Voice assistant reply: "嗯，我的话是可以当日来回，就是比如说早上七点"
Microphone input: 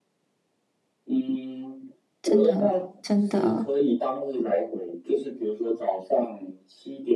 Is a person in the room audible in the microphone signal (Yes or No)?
Yes